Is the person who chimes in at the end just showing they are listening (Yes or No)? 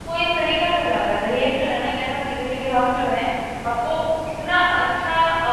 Yes